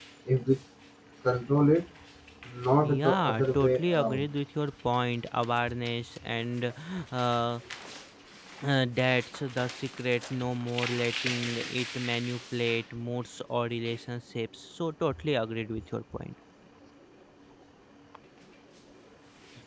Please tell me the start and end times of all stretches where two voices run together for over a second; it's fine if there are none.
2.8-4.3

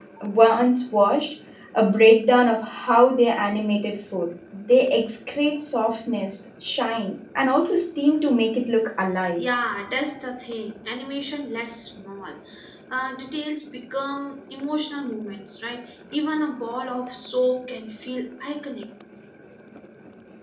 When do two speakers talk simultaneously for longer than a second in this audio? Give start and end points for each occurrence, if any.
none

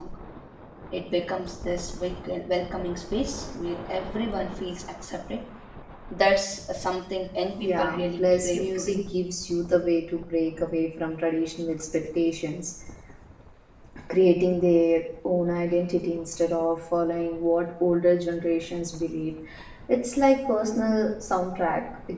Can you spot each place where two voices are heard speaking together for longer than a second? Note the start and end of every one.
7.6-9.0

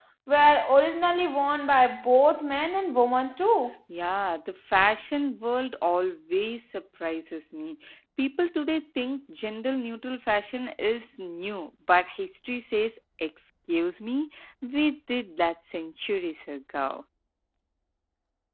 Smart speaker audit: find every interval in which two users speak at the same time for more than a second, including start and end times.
none

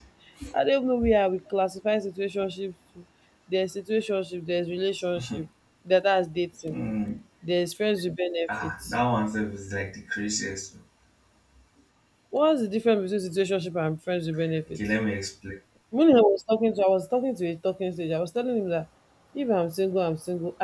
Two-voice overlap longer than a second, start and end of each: none

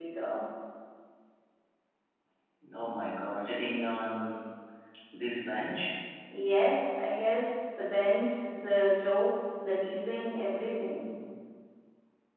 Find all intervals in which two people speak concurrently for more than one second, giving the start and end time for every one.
none

